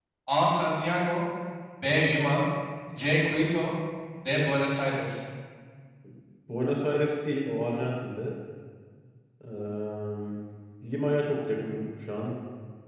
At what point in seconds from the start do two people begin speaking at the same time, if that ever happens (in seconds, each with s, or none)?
none